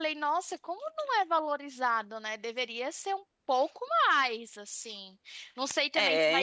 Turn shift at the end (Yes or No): No